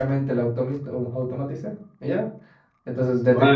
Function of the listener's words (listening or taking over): taking over